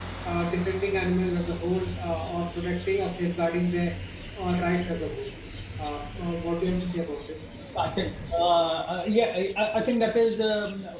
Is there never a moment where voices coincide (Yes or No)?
Yes